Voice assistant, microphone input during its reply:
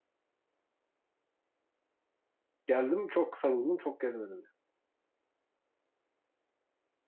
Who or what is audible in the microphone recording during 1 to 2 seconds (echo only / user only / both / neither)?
neither